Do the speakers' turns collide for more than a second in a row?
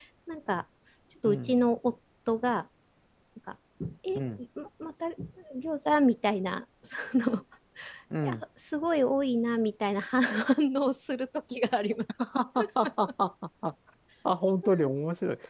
No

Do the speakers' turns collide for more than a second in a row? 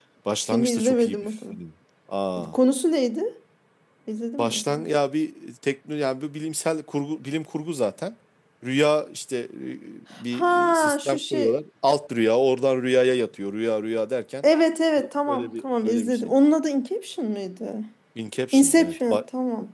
Yes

